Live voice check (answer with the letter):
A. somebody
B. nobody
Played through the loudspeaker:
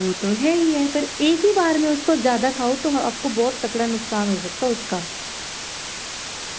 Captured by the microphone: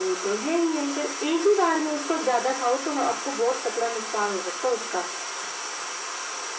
B